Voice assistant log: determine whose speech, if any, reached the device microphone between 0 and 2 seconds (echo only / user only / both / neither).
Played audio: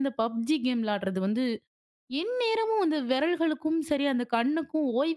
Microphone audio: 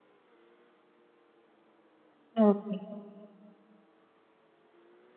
neither